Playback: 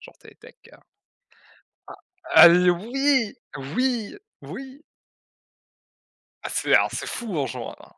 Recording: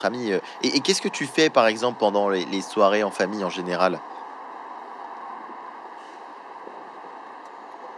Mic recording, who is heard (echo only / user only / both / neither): user only